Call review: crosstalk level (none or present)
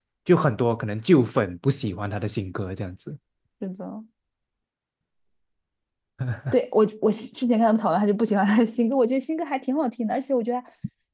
none